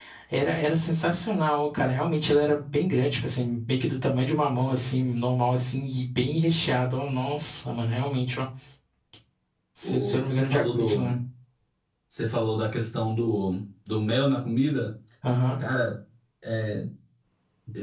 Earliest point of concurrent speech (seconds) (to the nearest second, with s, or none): 10 s